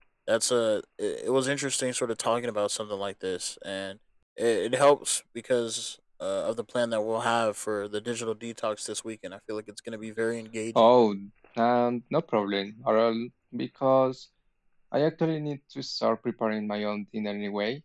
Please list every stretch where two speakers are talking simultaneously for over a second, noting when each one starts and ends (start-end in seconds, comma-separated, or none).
none